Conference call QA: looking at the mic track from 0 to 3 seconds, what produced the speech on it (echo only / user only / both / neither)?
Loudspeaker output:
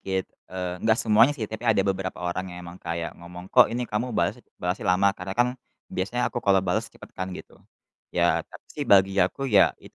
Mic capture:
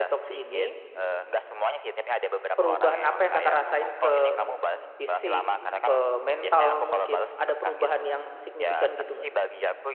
both